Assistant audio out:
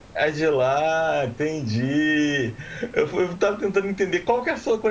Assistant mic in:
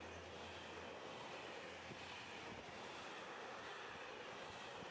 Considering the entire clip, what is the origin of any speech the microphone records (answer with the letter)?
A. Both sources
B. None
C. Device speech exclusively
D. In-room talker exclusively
B